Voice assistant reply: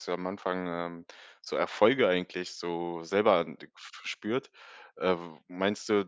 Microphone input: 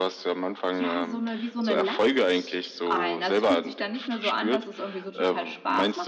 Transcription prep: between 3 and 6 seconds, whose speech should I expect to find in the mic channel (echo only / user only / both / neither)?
both